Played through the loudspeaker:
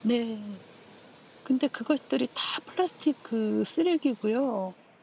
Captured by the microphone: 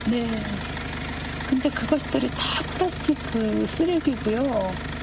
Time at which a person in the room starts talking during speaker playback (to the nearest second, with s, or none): none